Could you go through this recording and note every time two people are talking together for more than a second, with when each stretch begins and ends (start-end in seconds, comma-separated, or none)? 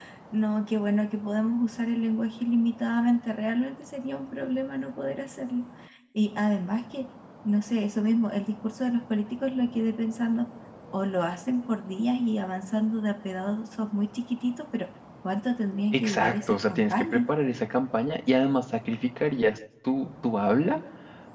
15.9-17.2